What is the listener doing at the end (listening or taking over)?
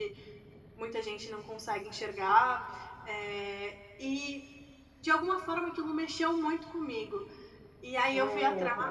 listening